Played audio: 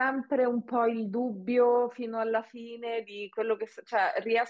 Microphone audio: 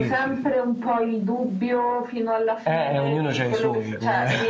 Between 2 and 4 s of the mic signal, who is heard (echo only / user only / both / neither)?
both